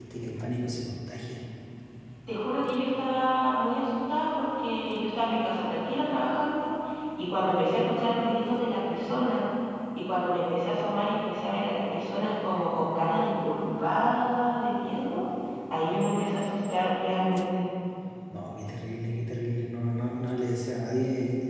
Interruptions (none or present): none